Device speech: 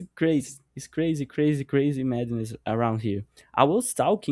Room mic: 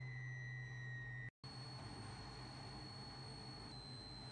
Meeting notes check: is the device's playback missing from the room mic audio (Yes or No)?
Yes